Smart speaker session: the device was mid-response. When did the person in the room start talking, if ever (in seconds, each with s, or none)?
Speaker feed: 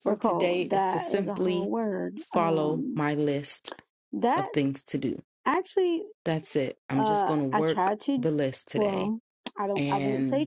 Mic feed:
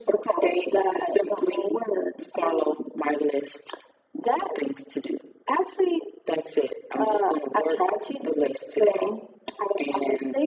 none